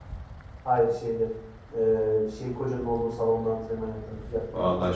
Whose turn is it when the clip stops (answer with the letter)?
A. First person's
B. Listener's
B